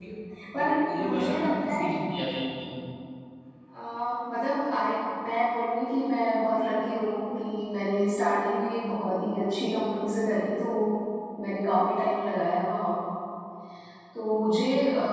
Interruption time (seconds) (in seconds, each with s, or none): 0.6 s